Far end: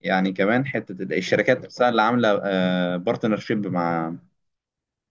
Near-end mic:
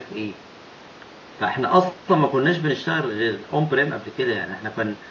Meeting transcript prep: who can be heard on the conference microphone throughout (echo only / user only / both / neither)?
user only